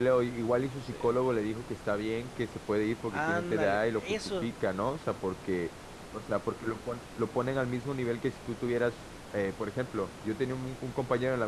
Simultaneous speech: Yes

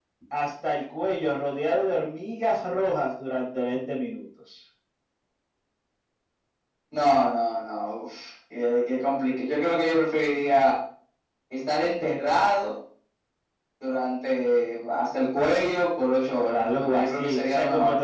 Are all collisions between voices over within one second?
No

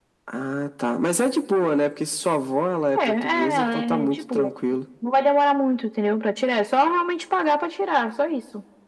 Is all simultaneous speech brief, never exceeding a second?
No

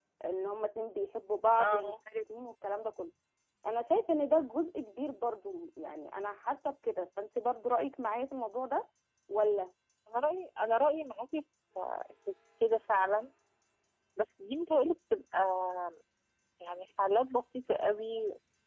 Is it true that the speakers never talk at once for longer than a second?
Yes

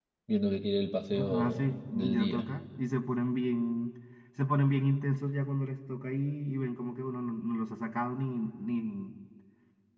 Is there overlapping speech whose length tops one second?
Yes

